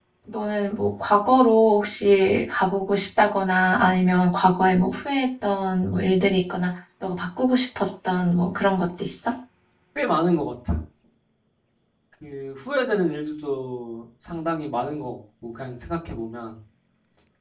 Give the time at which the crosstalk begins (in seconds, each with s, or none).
none